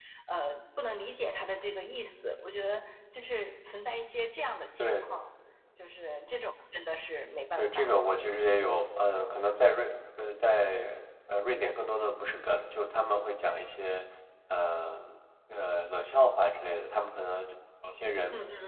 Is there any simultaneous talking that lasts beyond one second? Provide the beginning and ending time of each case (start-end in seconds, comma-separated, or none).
none